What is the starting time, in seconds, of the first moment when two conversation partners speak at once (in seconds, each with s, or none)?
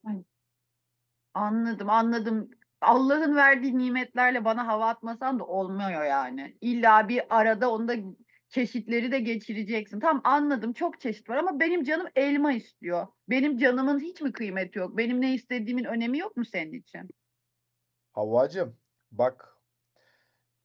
none